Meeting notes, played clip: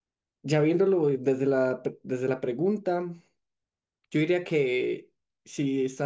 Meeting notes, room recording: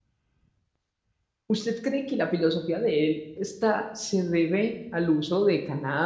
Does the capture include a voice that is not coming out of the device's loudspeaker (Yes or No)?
Yes